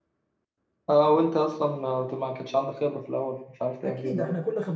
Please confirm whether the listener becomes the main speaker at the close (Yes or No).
Yes